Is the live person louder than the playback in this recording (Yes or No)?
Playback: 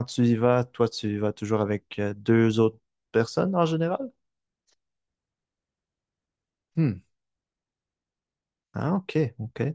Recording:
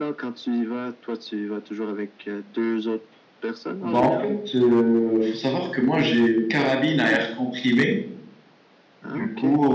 Yes